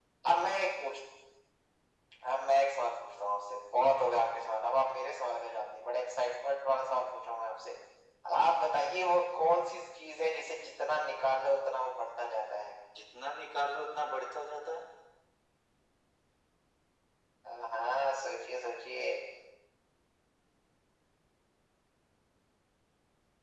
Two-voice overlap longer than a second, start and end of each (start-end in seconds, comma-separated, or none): none